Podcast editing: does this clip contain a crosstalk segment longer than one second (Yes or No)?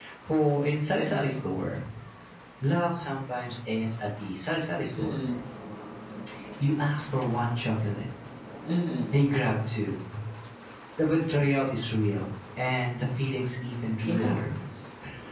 No